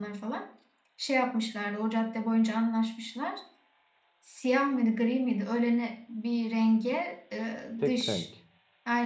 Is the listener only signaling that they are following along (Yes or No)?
Yes